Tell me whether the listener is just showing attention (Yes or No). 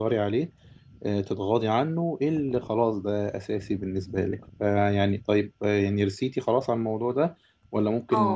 No